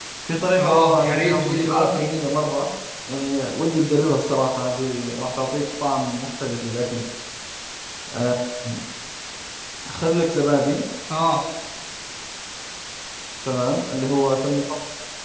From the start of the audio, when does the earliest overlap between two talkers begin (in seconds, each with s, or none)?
0.6 s